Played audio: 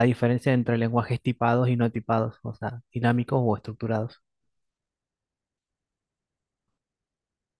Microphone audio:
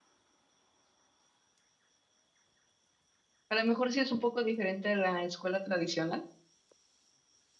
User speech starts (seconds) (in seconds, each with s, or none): 3.5 s